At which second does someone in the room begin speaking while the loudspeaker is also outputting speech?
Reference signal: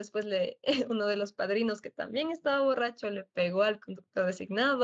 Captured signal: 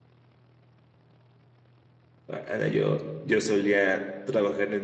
2.3 s

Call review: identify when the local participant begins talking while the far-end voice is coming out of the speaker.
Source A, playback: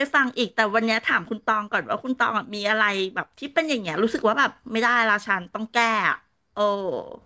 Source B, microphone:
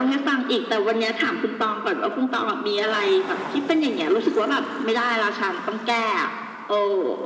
none

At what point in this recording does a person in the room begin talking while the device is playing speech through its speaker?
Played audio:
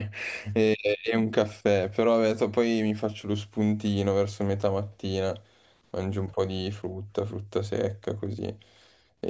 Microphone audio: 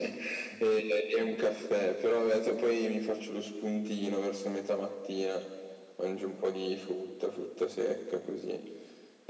none

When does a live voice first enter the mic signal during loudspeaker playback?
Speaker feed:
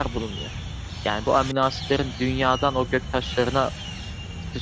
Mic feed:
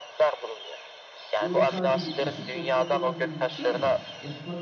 1.4 s

